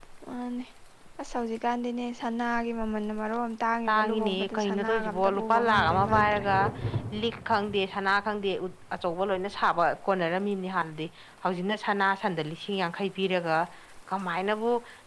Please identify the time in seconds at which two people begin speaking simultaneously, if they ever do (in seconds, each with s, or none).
3.9 s